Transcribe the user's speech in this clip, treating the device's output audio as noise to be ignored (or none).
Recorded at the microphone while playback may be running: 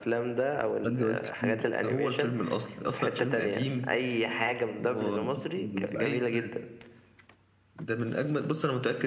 خد جوايز كتير